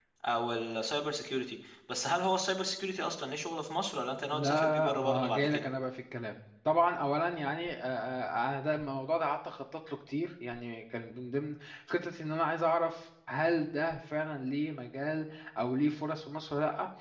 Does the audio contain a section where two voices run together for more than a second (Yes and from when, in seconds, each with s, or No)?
Yes, from 4.3 s